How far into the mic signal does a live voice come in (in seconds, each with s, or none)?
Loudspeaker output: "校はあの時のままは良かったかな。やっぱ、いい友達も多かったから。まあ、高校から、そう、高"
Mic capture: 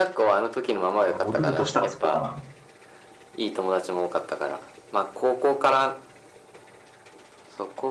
1.0 s